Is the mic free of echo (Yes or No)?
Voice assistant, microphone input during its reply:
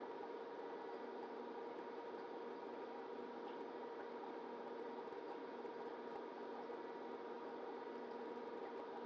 Yes